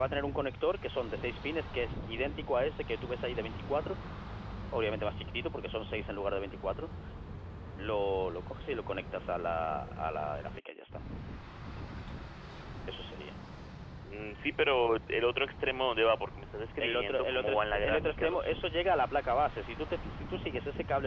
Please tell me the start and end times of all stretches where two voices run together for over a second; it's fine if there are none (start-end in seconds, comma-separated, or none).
16.8-18.5